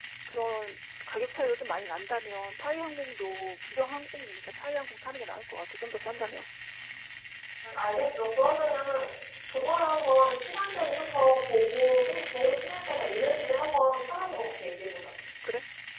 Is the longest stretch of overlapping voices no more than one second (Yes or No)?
Yes